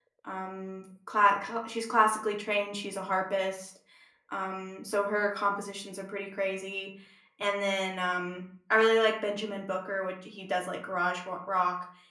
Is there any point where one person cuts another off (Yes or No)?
No